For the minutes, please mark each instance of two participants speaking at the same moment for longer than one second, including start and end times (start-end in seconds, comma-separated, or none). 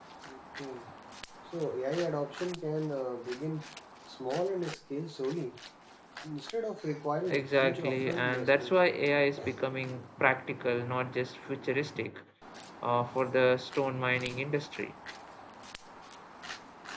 7.3-8.8